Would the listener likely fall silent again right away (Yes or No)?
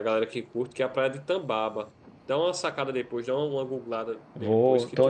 No